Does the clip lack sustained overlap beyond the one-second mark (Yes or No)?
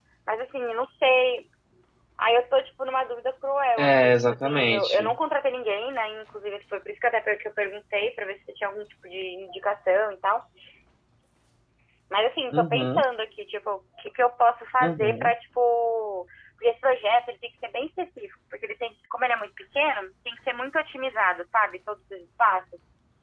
No